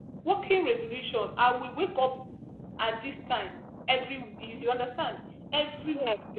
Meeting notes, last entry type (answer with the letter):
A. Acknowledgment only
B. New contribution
A